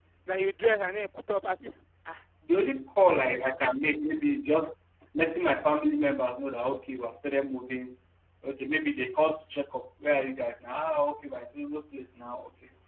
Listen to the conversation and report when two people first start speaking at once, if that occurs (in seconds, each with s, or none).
none